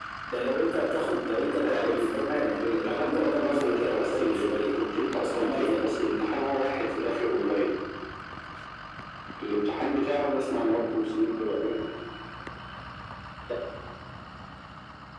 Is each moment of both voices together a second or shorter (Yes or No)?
No